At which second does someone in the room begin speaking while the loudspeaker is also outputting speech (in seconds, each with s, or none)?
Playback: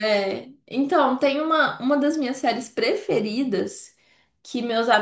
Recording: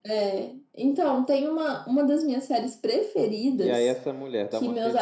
3.6 s